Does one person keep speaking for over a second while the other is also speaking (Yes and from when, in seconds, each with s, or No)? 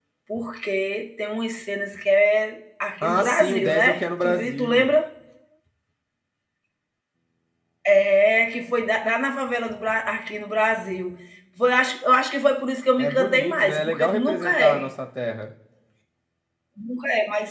Yes, from 3.0 s